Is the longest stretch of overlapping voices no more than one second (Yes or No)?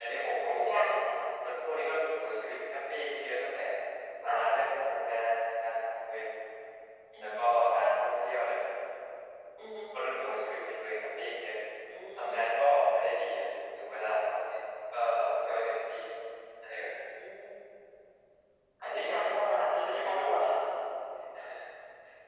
No